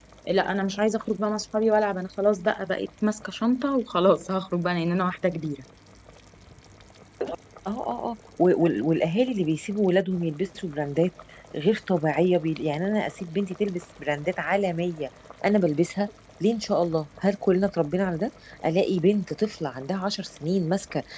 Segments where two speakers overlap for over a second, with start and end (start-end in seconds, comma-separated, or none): none